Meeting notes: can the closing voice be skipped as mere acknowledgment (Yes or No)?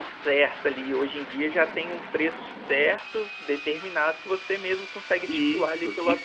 No